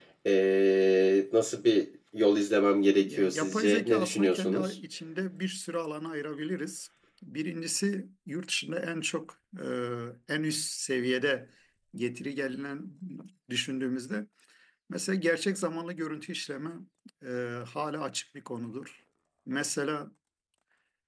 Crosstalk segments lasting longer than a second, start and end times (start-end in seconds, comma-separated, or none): 3.0-4.7